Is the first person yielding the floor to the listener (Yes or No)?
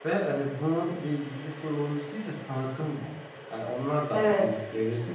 No